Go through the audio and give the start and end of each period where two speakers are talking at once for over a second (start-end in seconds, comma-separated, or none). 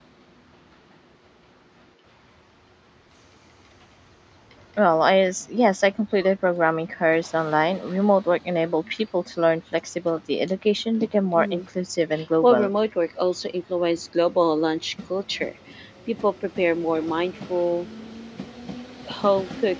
none